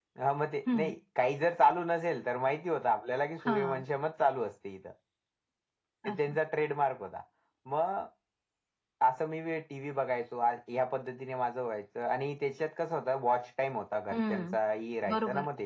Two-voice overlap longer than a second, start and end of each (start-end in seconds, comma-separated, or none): none